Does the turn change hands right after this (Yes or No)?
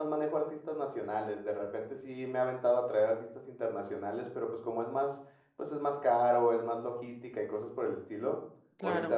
No